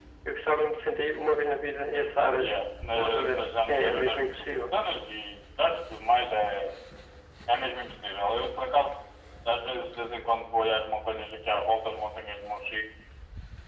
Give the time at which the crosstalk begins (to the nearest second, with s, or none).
3 s